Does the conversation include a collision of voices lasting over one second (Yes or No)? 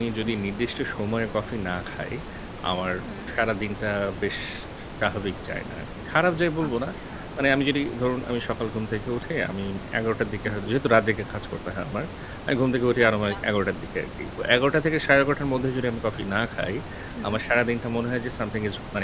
No